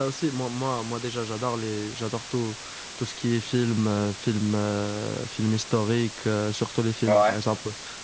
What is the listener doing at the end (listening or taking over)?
listening